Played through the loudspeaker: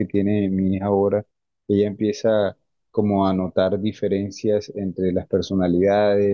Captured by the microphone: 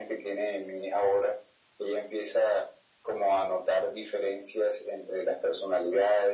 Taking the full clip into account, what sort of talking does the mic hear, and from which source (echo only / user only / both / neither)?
echo only